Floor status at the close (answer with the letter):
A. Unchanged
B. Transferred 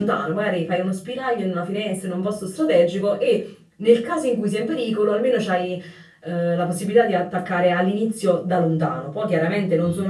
A